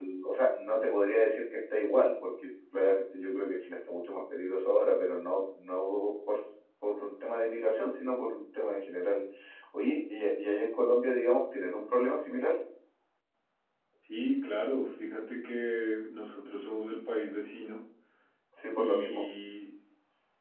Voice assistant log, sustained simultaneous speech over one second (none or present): none